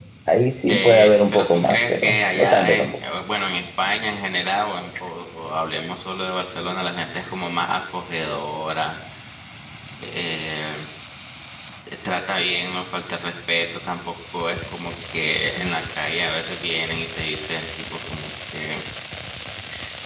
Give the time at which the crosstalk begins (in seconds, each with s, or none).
0.7 s